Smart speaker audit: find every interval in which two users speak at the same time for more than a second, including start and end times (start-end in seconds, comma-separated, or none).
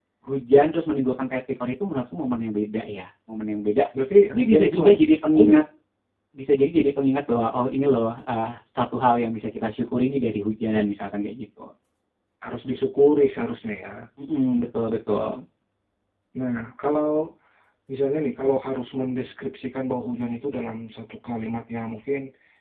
4.3-5.5